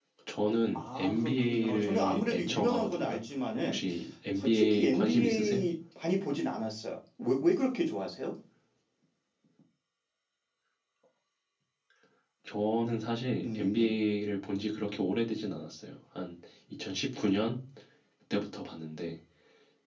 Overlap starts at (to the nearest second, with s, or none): 1 s